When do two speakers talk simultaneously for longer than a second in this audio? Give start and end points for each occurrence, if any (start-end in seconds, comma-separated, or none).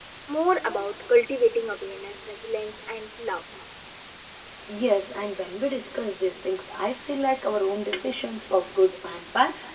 none